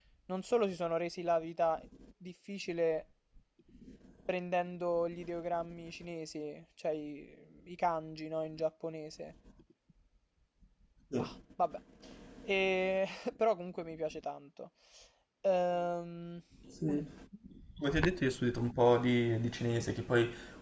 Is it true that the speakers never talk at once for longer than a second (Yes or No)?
Yes